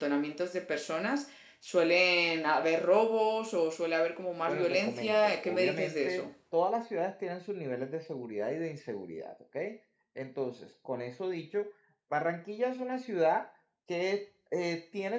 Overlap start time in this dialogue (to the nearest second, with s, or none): 4 s